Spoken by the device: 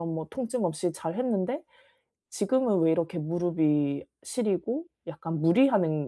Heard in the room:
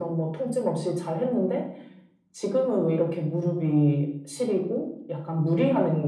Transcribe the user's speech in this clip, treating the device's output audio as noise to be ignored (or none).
none